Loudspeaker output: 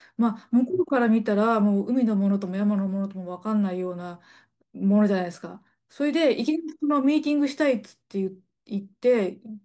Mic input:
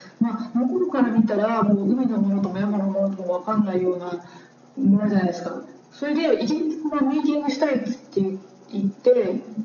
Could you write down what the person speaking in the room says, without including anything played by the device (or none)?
none